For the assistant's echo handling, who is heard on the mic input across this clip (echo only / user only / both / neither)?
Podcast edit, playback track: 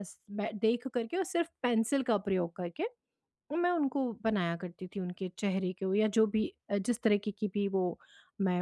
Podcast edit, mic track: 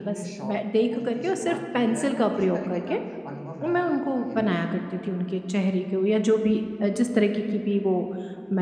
both